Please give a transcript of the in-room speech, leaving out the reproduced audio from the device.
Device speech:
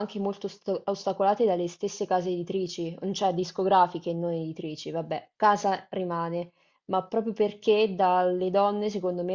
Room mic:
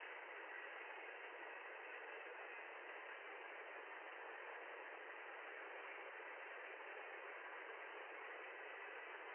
none

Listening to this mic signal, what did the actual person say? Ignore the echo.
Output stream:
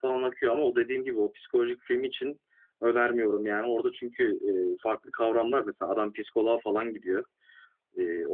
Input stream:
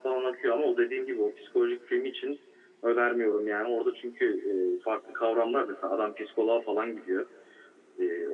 none

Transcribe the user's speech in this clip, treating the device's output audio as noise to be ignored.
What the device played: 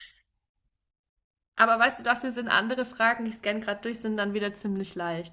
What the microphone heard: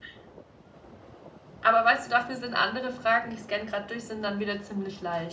none

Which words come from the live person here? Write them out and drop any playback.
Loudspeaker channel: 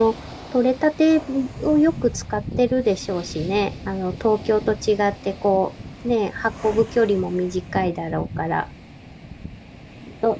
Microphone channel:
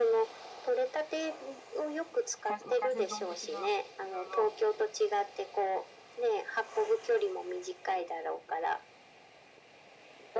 海鮮、まあ、海鮮丼的な、いろいろ。

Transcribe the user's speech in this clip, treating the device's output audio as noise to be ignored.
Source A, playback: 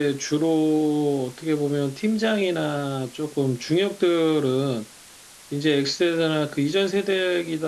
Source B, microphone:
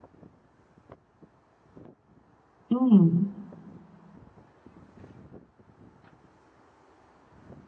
음,

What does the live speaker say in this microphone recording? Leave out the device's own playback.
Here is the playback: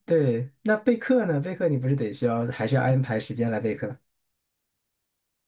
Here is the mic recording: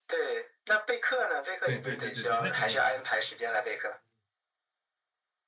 对对对对对，那肯定，

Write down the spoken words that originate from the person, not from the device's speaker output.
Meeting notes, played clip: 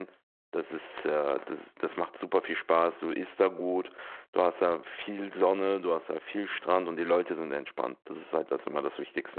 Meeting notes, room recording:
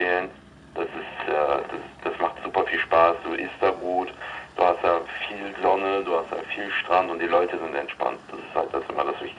none

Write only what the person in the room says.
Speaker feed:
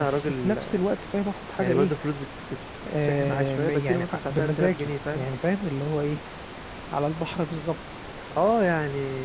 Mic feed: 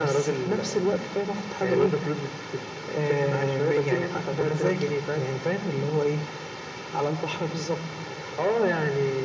none

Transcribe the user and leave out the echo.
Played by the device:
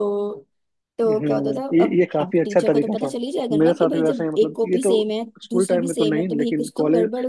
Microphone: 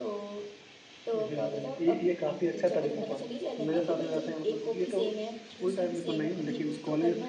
none

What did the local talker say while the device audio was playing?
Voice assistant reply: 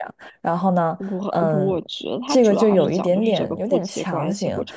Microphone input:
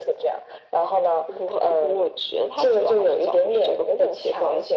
none

